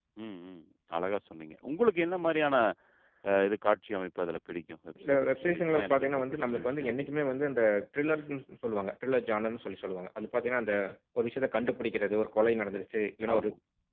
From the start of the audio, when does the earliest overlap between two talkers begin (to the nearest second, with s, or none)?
5 s